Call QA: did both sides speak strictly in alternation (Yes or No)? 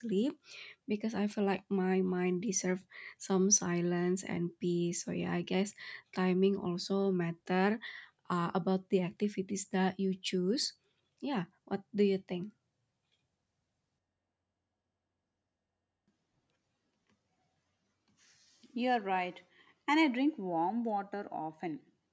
Yes